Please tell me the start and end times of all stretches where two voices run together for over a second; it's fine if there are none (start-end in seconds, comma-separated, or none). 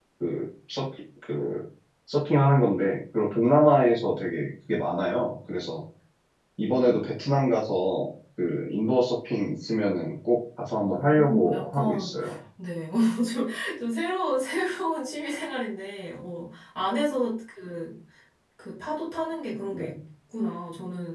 10.8-12.1